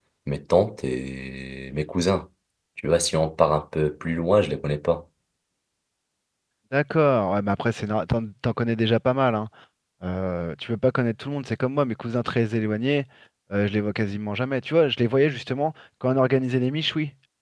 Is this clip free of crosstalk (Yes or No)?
Yes